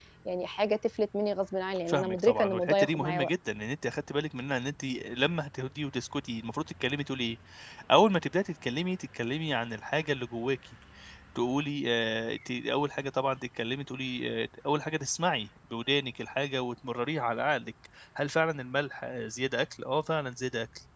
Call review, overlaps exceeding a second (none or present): present